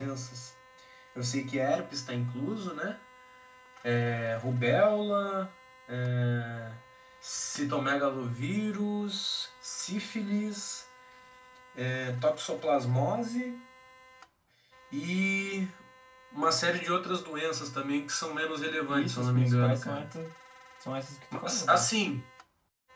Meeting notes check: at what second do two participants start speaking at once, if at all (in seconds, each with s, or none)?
18.9 s